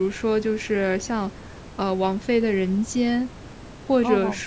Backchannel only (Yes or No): Yes